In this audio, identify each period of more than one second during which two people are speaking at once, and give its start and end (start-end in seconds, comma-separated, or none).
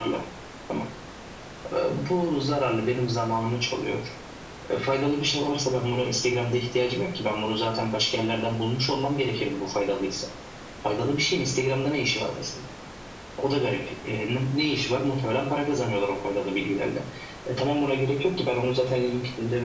none